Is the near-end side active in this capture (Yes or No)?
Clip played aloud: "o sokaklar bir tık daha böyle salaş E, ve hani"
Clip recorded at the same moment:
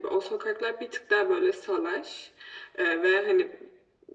No